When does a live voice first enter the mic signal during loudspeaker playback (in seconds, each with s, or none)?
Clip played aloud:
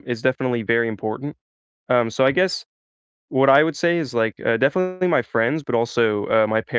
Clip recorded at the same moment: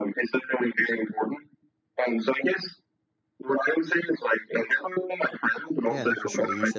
5.8 s